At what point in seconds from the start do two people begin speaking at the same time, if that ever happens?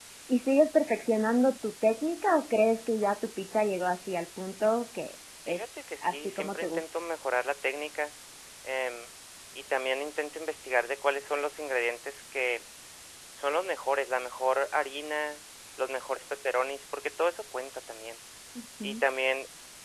5.4 s

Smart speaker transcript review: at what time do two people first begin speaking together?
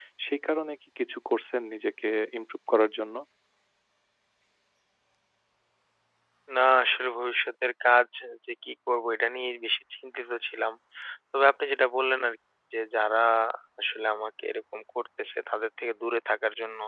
none

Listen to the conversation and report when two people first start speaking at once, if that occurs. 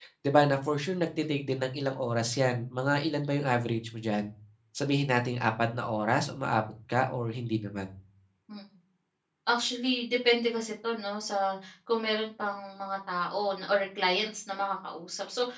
none

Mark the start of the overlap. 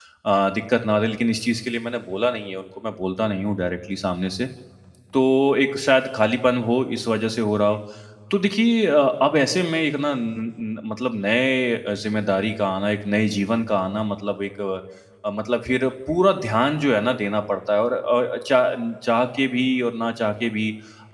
none

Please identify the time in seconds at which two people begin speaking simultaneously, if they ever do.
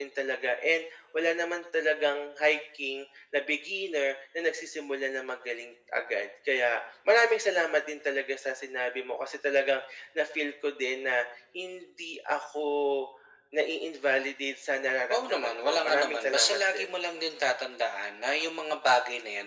15.1 s

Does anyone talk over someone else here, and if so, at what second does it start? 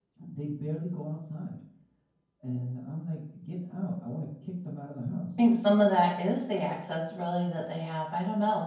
none

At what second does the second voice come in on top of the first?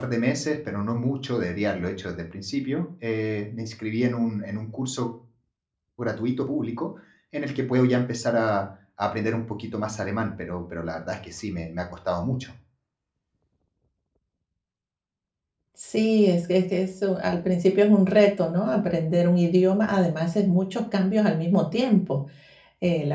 none

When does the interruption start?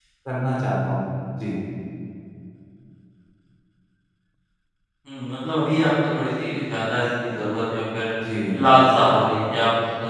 none

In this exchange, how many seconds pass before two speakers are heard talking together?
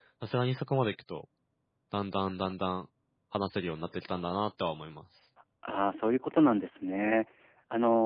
none

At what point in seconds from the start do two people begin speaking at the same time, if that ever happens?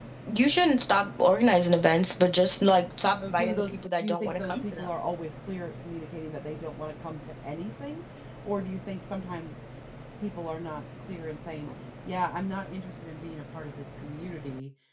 3.3 s

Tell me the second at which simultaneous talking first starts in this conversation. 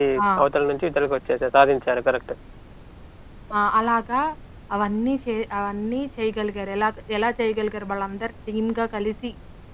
none

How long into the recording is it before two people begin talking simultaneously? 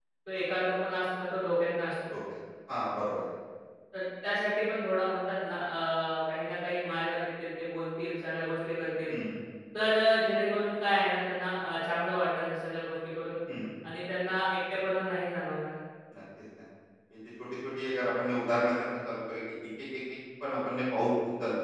none

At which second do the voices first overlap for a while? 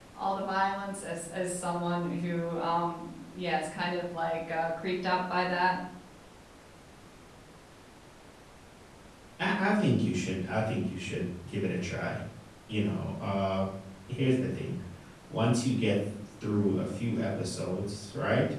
none

